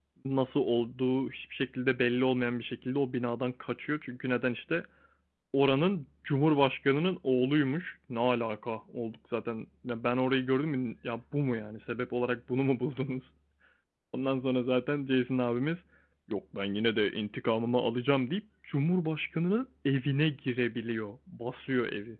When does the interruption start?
none

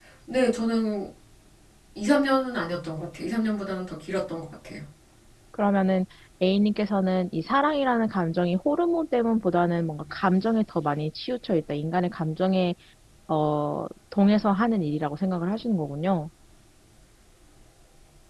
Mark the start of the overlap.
none

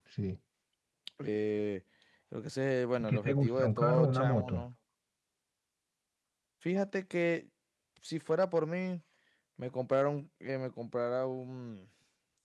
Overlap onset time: 3.0 s

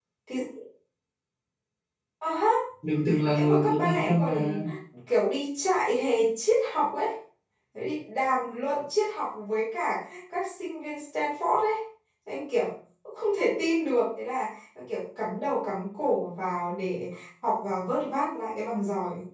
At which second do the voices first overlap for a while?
3.3 s

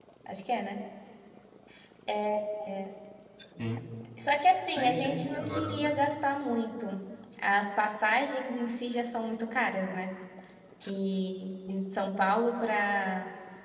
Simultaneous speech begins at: 4.7 s

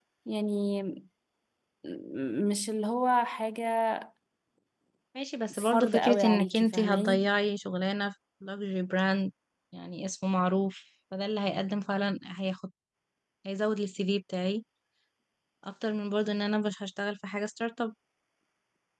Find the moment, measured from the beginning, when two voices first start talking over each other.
5.6 s

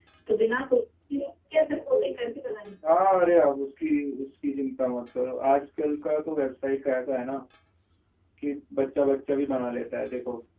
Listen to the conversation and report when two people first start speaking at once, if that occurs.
none

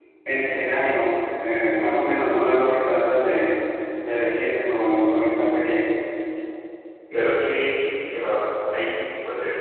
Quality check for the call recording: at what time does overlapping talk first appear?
none

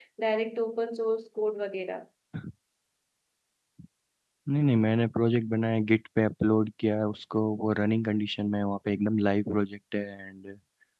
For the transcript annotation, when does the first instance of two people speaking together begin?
none

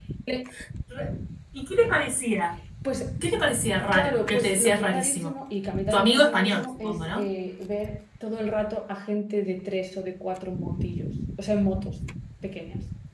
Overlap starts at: 3.9 s

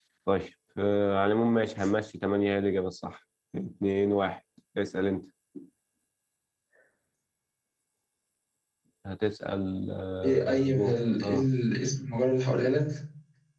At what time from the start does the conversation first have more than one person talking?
10.2 s

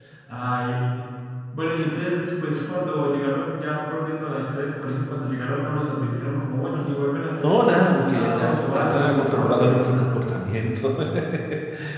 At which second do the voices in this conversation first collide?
7.4 s

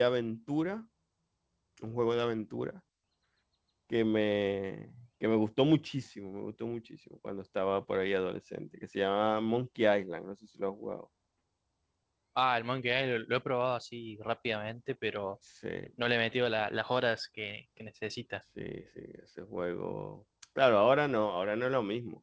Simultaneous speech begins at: none

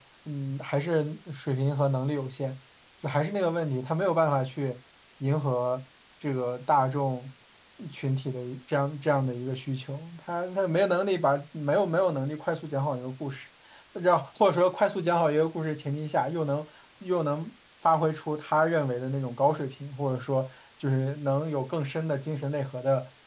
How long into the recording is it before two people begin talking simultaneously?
none

